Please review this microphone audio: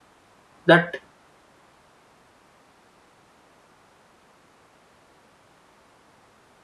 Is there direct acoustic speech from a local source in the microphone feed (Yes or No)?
Yes